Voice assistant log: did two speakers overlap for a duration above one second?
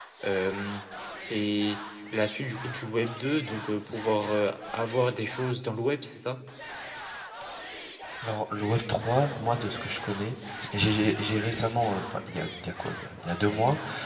No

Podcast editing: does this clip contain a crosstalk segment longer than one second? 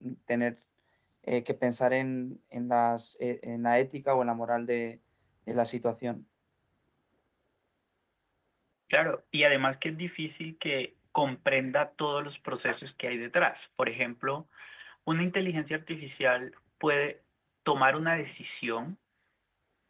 No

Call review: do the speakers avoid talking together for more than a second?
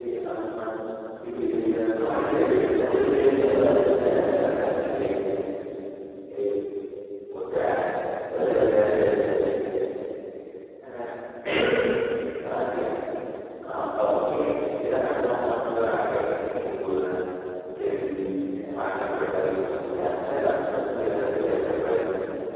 No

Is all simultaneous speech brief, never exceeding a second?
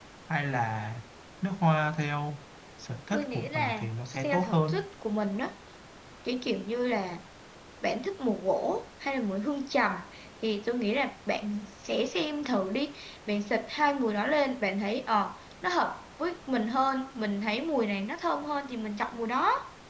No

